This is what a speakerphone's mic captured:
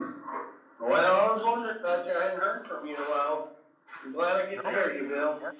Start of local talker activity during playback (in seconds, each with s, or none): 4.5 s